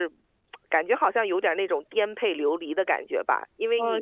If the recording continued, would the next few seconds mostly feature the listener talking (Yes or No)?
Yes